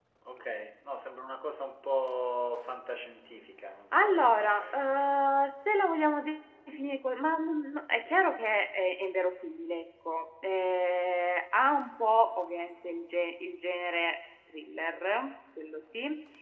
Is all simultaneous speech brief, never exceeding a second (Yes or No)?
Yes